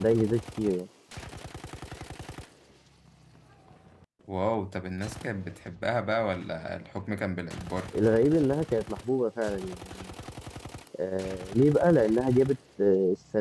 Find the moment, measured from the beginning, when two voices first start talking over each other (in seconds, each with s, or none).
none